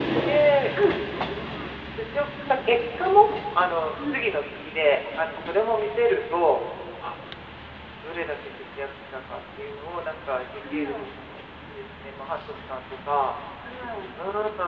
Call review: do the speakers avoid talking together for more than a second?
Yes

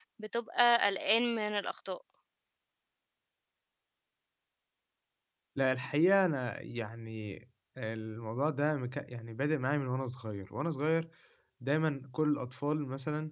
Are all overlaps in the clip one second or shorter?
Yes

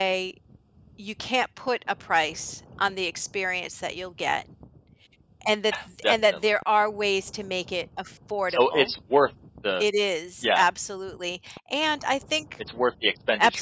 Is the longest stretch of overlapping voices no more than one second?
Yes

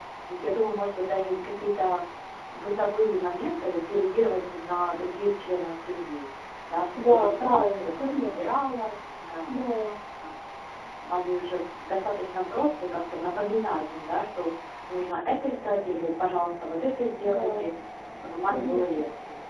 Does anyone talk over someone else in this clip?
Yes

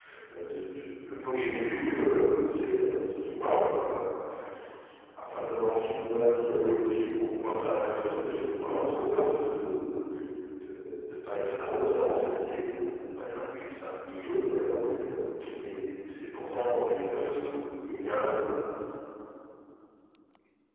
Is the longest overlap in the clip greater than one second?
No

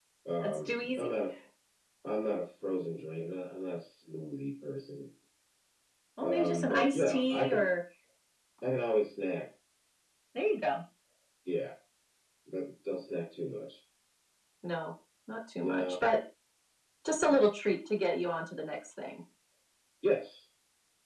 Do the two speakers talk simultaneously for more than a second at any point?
Yes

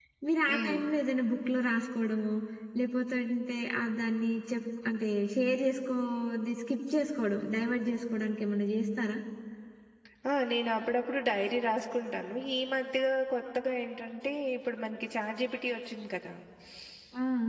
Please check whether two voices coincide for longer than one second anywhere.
No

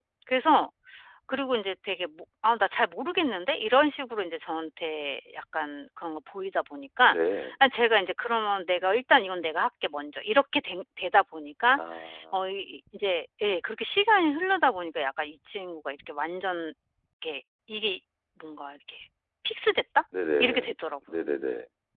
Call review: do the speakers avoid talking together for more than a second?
Yes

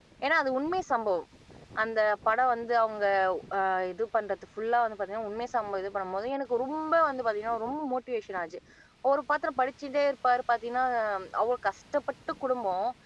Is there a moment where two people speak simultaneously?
No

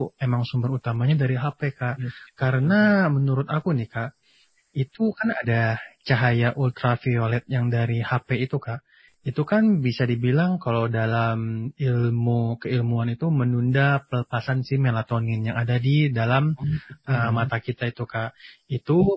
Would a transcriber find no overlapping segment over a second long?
Yes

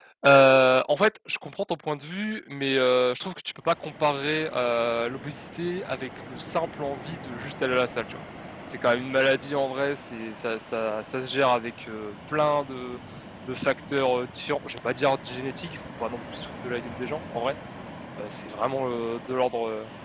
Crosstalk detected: No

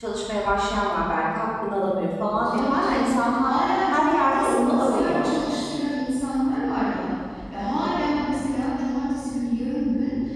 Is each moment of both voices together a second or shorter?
No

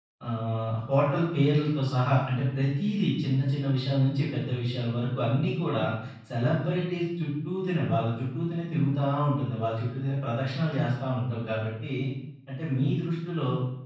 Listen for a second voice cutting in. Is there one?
No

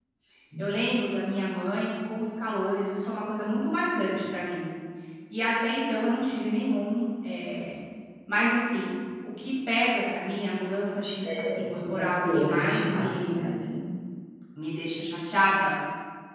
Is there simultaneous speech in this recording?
Yes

